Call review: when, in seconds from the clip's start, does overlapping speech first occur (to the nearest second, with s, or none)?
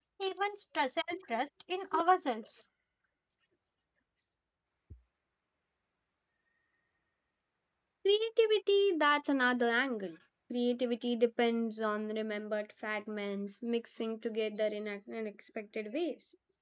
none